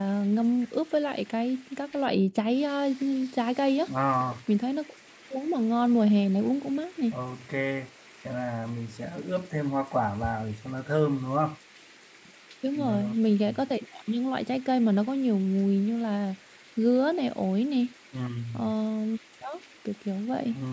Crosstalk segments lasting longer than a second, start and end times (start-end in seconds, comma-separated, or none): none